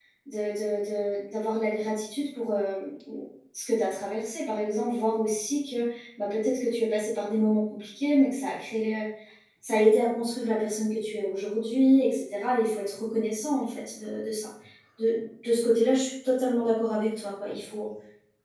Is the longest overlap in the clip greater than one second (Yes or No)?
No